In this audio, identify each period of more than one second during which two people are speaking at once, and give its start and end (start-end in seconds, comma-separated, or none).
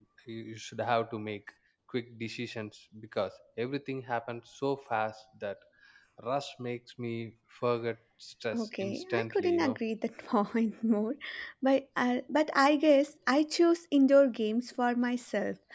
8.6-9.8